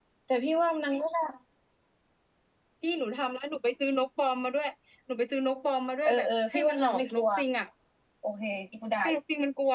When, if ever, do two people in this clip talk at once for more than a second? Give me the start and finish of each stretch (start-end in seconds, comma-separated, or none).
6.0-7.2